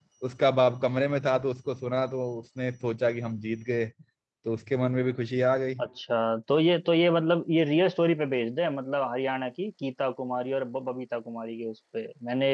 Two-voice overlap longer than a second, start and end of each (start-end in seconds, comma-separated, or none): none